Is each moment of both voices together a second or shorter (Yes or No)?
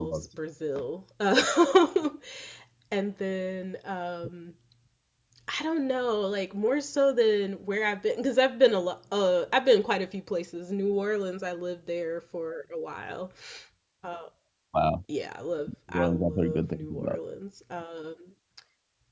No